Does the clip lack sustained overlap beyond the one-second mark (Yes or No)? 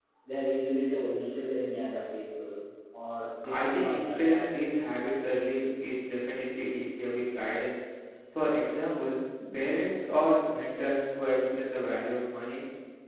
No